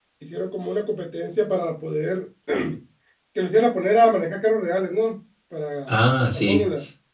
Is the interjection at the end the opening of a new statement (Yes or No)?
Yes